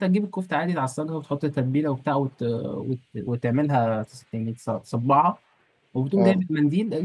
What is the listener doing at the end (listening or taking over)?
listening